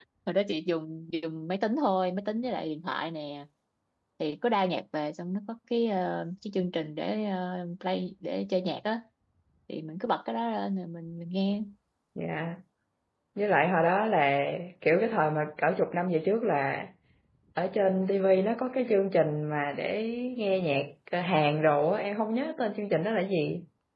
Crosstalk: none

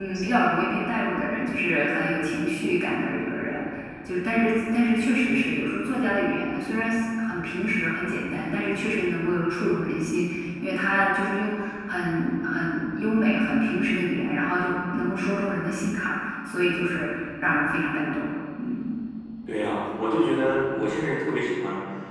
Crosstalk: none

